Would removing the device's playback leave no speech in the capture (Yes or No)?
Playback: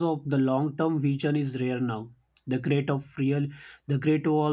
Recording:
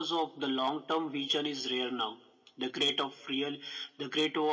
Yes